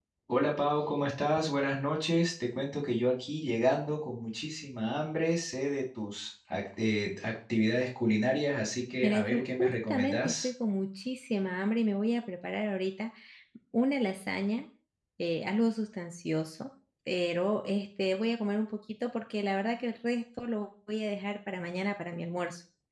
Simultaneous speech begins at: 9 s

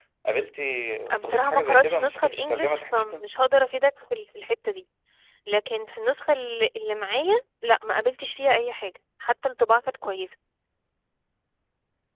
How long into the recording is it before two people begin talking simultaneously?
1 s

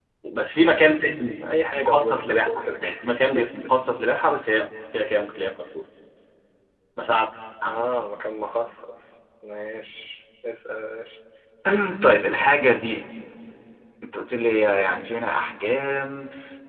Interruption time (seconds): 2 s

